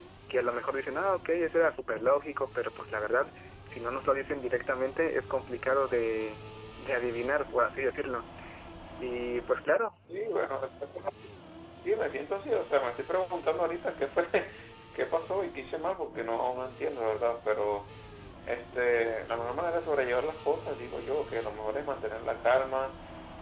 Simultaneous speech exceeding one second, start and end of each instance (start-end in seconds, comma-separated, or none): none